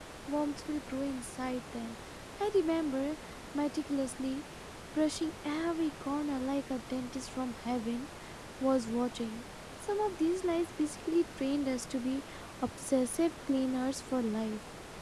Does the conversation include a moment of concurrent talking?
No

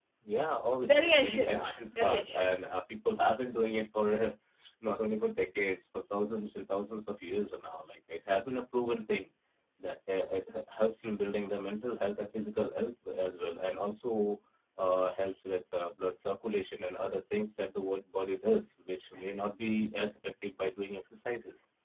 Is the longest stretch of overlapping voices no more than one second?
No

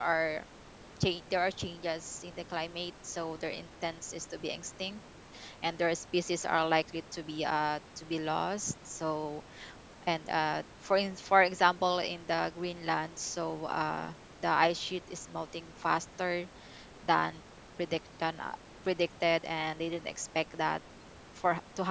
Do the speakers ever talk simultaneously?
No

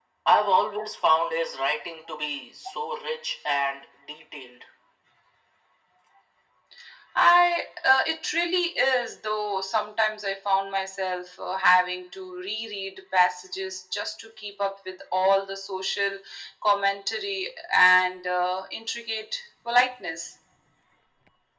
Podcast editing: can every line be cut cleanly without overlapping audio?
Yes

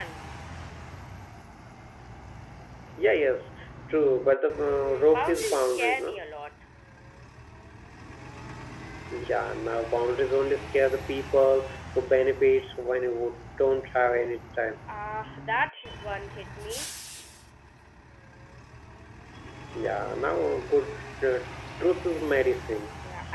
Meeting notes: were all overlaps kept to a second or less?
No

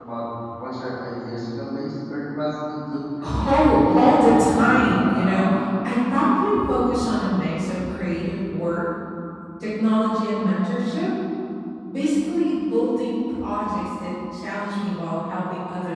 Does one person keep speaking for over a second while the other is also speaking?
Yes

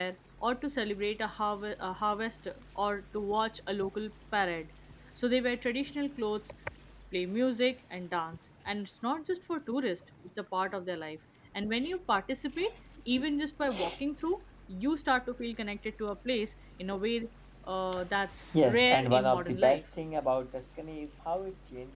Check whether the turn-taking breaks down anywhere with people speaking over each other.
Yes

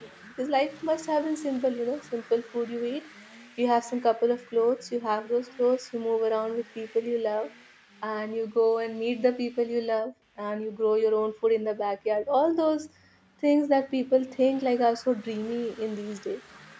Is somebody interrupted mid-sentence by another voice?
No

